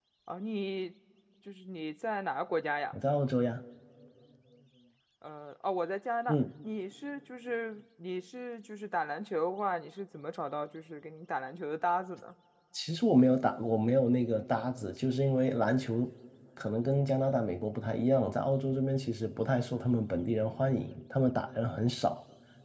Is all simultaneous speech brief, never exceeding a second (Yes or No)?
Yes